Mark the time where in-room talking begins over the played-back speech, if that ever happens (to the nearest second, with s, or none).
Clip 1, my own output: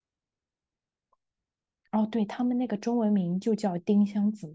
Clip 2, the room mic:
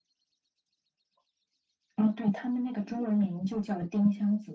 none